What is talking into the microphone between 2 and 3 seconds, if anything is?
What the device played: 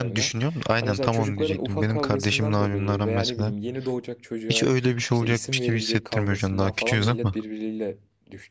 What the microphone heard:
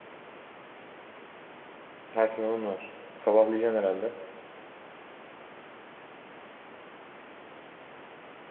user only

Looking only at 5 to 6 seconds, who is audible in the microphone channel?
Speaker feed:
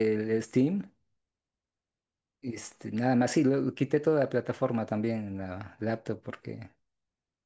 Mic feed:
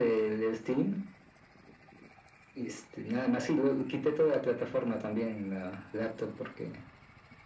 echo only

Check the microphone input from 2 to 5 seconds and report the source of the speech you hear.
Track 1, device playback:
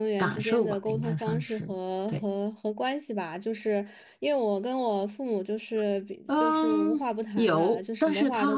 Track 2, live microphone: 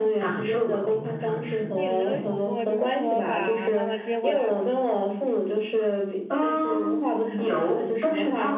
both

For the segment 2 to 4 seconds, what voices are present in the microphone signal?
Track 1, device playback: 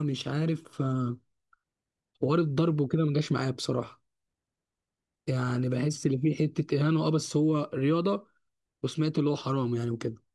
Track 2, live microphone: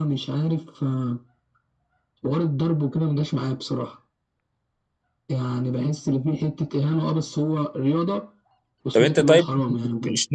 echo only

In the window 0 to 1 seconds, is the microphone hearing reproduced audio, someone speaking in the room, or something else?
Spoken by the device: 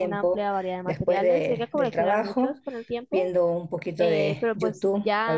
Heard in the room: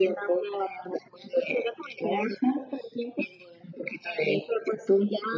echo only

